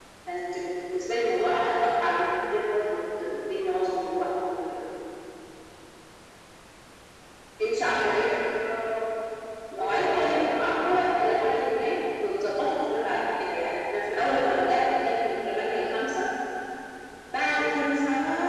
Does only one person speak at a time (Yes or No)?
No